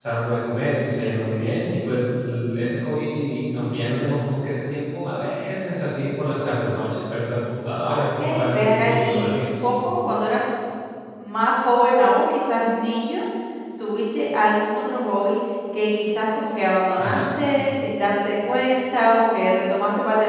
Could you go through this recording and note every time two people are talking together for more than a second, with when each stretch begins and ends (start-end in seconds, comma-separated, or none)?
7.8-9.6